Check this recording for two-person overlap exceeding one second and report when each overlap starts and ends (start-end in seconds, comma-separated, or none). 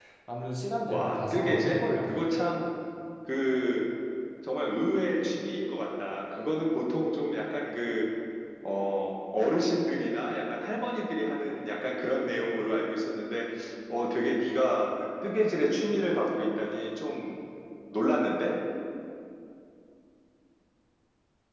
0.9-2.2